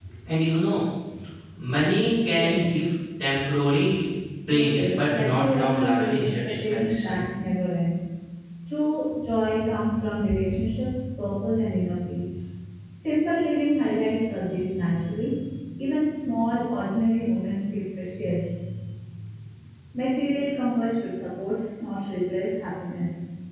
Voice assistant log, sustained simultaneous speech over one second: present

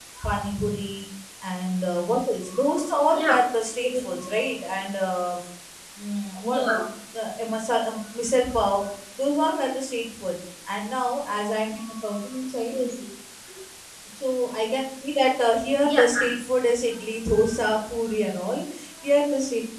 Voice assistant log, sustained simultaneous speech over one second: none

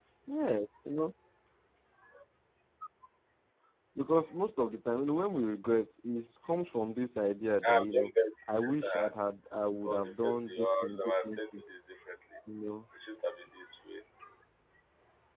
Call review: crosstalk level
present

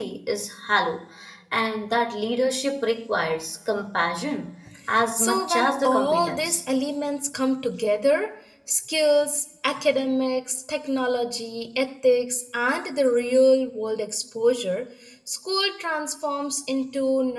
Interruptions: present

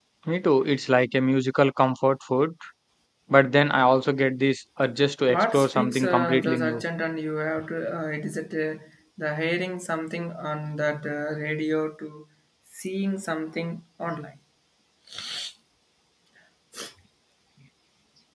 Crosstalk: present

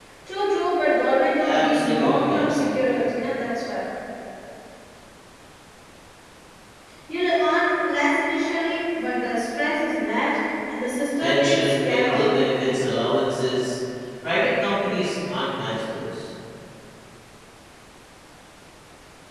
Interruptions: present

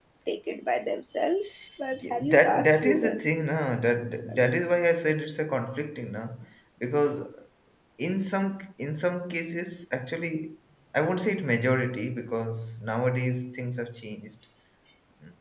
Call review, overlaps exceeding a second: present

